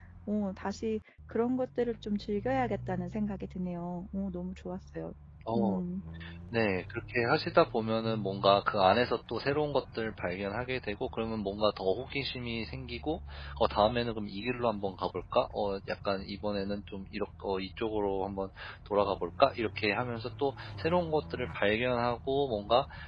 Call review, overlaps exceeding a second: none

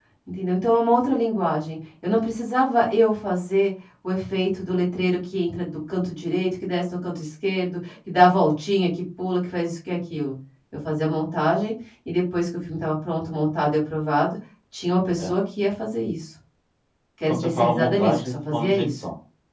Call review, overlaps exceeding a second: present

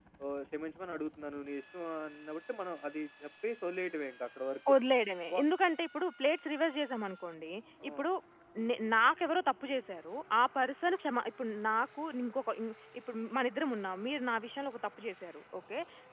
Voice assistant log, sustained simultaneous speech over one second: none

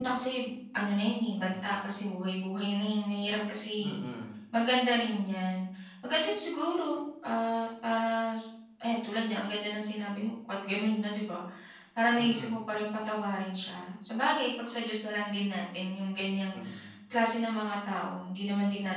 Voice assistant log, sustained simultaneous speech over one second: none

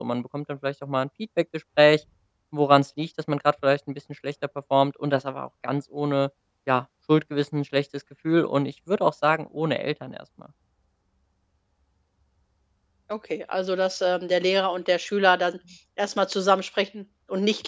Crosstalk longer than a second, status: none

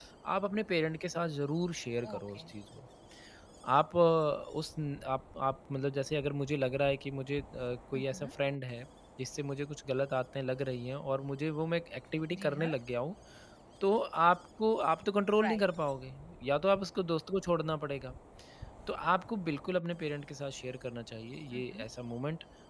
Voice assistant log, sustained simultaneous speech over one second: none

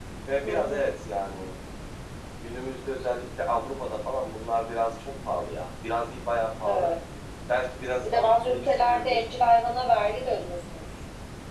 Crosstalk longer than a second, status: present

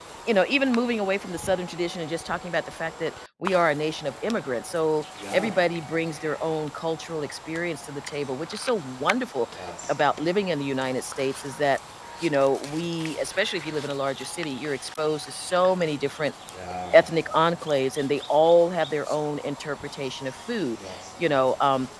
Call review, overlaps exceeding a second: none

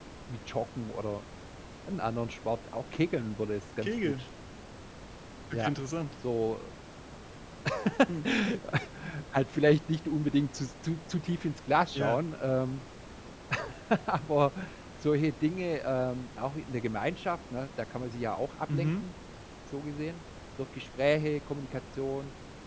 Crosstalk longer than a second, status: none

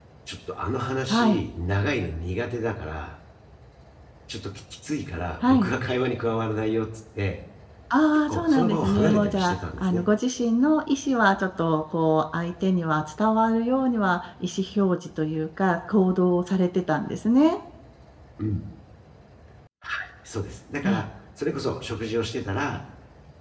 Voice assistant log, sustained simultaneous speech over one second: present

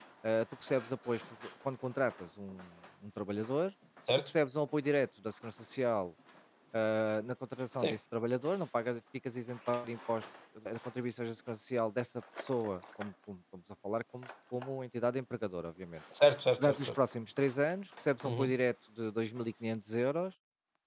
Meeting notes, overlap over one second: none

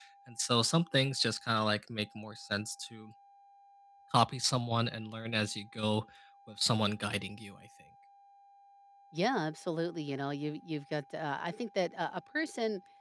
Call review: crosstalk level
none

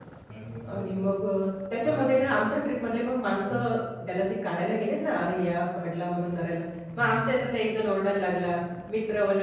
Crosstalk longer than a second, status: none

